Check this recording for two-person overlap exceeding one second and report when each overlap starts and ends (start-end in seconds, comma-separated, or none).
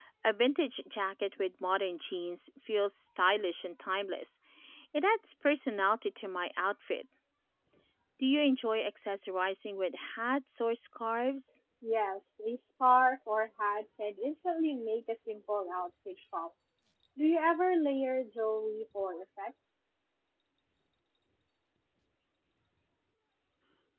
none